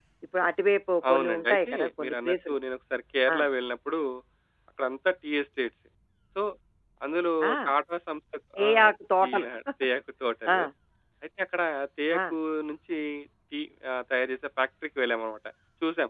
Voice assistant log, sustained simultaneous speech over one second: present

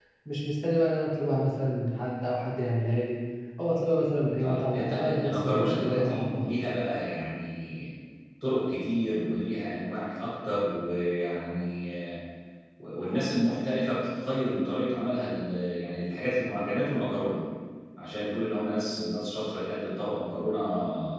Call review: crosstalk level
present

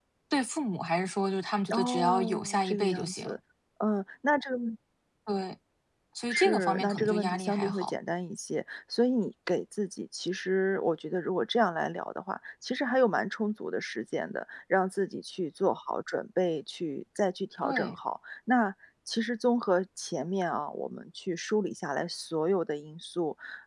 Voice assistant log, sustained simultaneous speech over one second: present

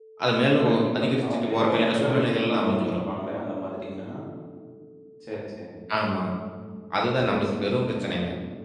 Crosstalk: present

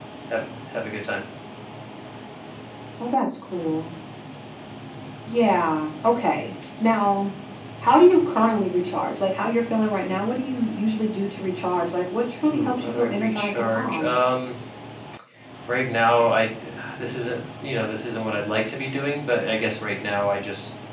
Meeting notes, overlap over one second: present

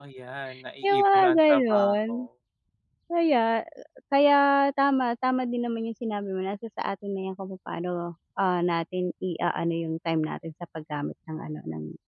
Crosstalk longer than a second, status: present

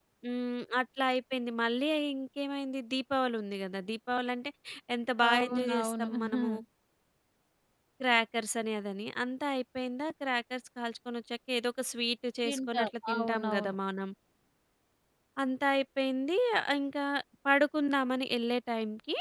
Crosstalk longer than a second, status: present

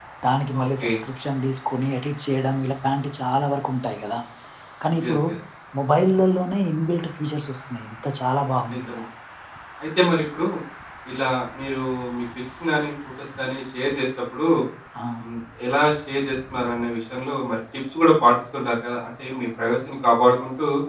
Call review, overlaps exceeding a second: none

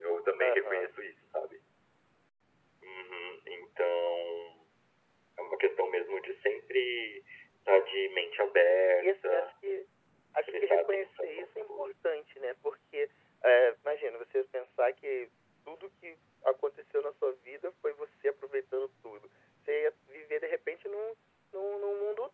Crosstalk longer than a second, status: present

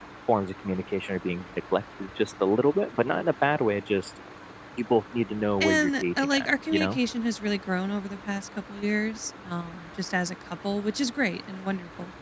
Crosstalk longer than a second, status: present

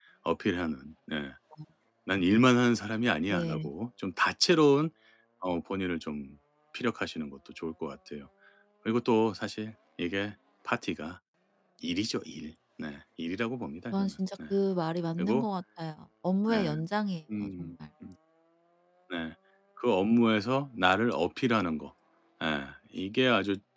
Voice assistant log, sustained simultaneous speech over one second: none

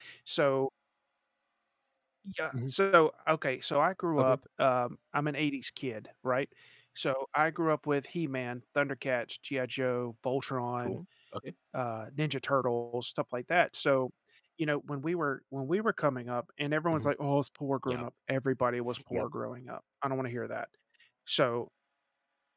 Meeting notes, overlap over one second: none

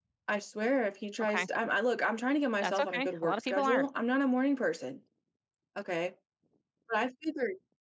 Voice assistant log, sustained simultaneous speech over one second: present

